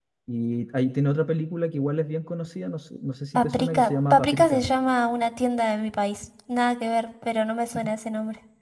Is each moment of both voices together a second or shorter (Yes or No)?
No